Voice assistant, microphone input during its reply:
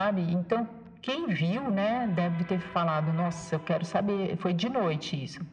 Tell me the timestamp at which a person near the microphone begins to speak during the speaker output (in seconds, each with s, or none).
none